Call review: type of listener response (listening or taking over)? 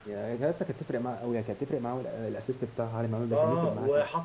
taking over